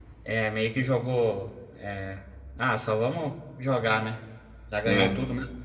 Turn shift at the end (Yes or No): No